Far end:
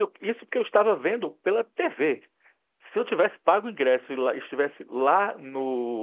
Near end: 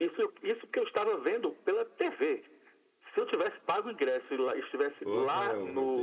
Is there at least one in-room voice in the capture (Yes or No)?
Yes